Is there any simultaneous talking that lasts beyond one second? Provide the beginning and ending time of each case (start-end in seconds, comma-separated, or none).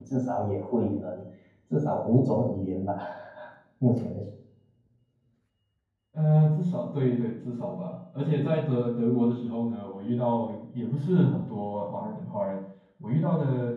none